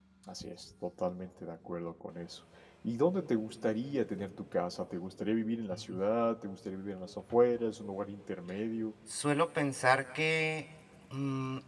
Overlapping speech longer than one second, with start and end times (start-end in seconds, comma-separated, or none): none